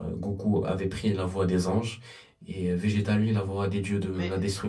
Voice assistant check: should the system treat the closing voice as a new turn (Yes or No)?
No